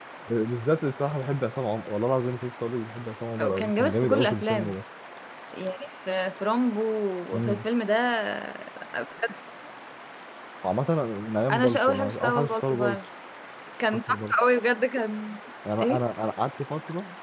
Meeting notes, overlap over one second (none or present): present